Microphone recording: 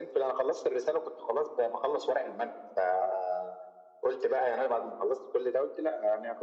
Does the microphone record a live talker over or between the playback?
No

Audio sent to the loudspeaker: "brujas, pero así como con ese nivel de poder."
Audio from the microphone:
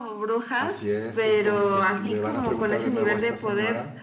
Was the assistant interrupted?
Yes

